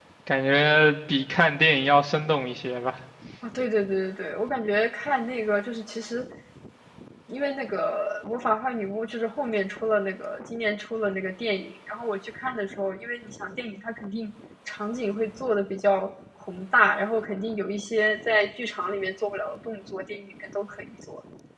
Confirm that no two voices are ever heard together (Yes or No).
Yes